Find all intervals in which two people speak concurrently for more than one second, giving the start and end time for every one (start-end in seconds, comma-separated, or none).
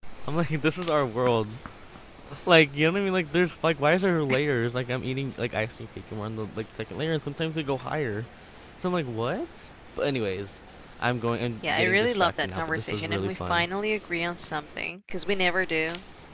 11.7-13.7